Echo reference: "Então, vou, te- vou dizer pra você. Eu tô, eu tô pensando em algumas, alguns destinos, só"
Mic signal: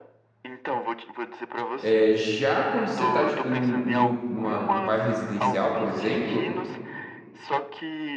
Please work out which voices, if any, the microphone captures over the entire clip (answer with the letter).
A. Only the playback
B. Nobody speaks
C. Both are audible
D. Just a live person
C